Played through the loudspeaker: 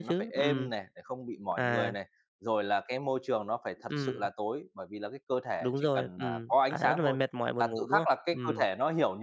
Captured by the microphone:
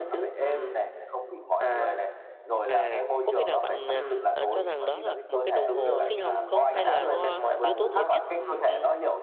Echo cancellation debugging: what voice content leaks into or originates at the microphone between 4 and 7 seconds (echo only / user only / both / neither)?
both